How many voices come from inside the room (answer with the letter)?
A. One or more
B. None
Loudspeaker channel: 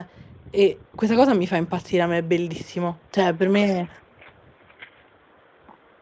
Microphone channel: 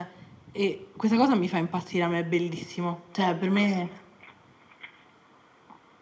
B